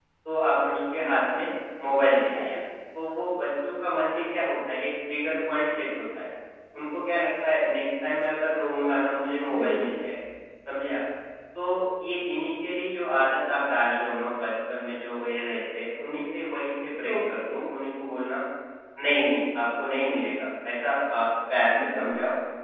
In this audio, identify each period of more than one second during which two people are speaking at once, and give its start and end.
none

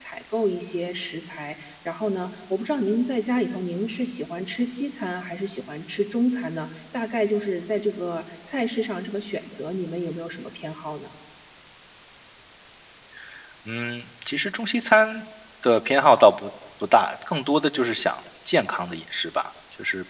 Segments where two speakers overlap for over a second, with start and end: none

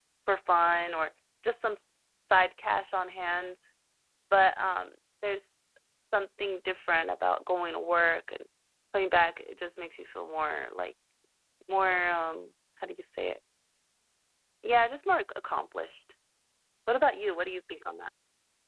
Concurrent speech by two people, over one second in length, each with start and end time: none

